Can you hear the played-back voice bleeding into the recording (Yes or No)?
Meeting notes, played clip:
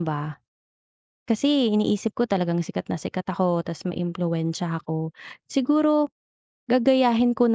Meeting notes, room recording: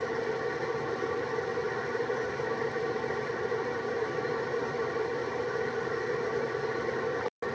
No